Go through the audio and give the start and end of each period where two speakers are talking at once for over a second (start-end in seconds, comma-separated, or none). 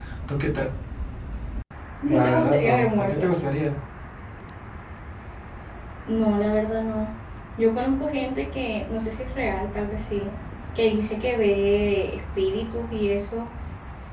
2.0-3.3